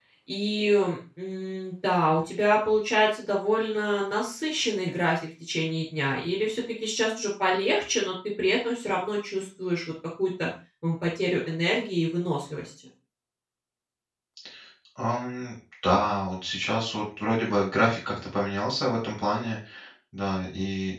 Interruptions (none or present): none